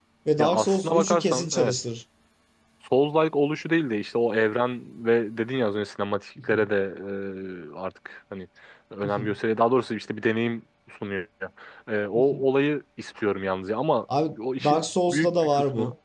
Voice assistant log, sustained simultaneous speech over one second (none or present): present